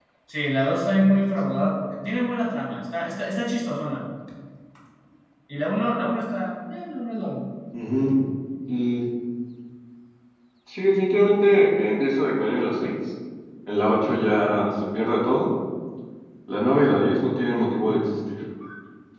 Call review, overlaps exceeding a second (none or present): none